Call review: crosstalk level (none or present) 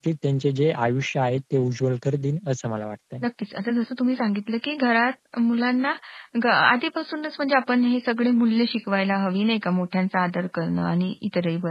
none